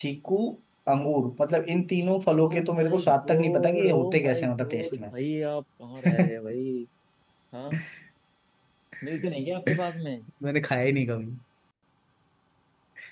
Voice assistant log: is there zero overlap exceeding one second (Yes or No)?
No